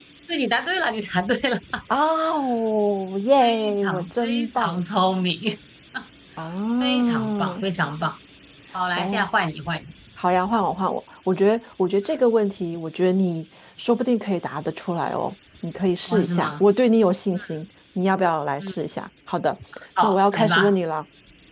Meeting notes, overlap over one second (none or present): present